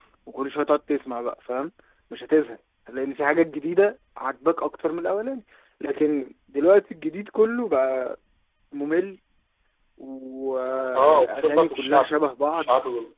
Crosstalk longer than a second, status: present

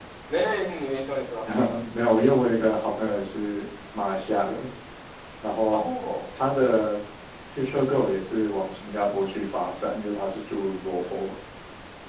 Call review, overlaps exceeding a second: none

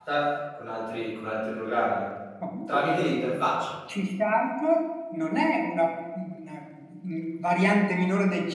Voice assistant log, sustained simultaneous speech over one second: none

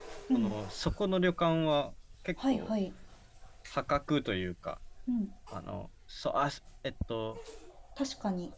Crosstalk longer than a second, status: none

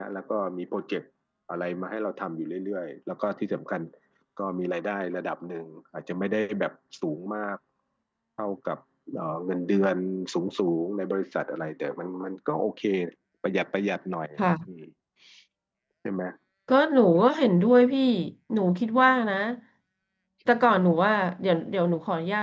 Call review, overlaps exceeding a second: none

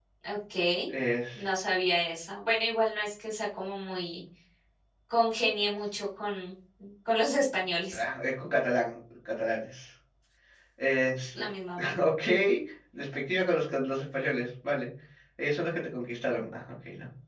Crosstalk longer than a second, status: none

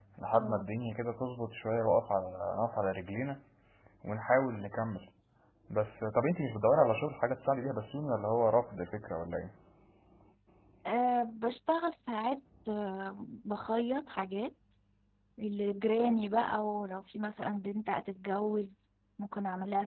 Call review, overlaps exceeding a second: none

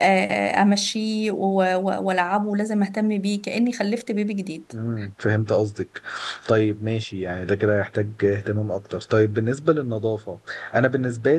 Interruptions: none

